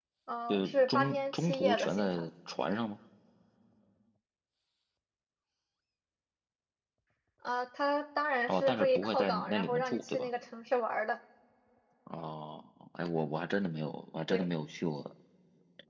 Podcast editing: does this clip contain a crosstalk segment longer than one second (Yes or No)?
Yes